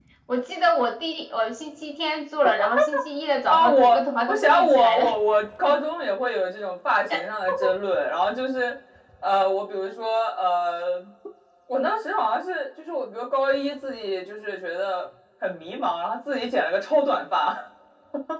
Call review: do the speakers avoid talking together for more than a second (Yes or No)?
No